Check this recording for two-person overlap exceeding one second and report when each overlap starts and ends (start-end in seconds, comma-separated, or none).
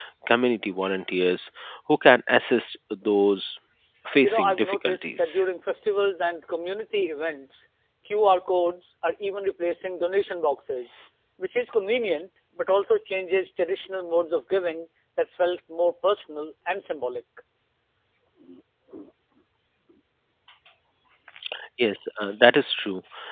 4.2-5.4